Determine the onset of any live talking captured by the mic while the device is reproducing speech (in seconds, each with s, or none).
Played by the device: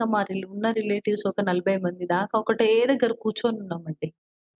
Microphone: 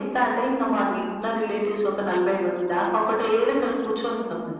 none